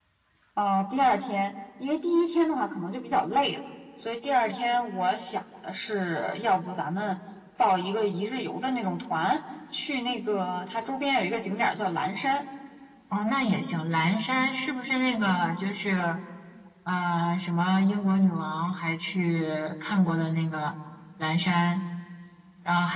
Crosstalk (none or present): none